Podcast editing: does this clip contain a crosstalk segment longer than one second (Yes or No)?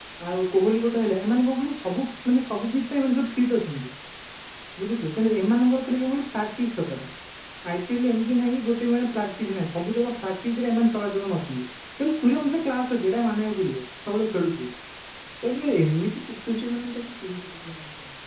No